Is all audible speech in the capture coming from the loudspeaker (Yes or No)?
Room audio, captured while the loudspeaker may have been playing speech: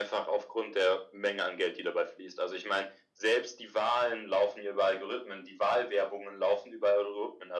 Yes